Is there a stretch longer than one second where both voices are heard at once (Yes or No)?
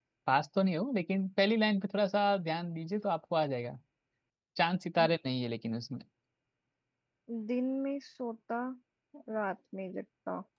No